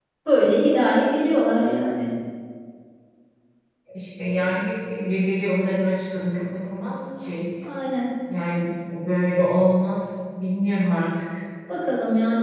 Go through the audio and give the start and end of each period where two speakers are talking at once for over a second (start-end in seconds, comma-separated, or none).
none